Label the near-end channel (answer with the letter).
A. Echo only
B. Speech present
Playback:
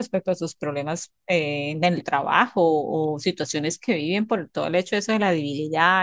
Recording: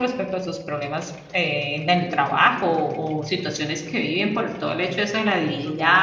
B